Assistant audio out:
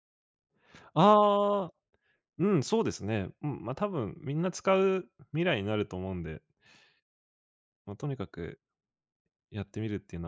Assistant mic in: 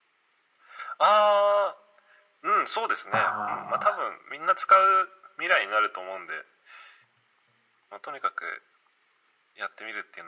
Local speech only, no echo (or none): ああ。